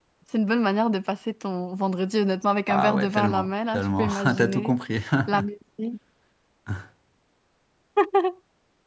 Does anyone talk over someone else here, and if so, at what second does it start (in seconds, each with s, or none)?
2.7 s